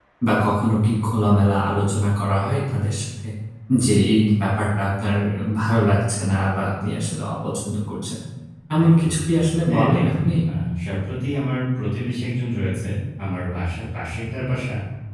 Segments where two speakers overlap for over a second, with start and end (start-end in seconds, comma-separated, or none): 8.9-10.4